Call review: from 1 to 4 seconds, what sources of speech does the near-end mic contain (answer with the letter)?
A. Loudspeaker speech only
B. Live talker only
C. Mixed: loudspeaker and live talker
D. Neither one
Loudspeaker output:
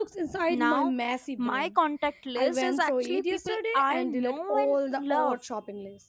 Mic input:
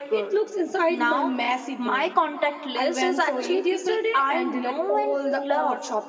A